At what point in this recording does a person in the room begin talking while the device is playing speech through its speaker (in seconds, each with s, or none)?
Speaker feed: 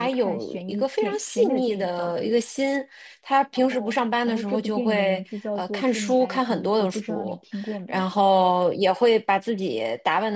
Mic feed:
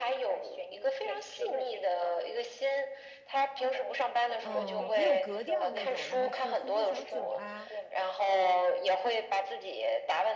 4.4 s